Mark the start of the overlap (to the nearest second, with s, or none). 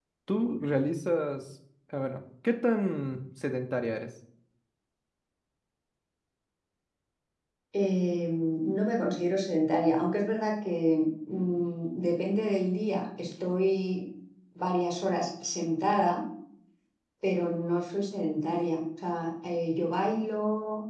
none